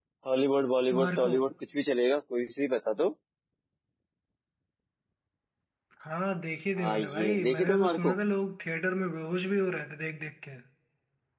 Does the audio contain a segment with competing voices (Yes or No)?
Yes